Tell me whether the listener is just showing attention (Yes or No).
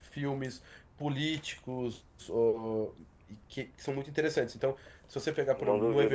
Yes